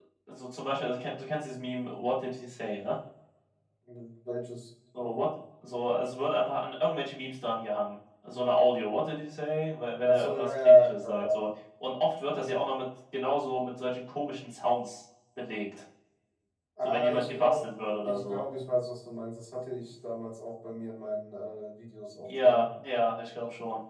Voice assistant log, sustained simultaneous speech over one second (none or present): present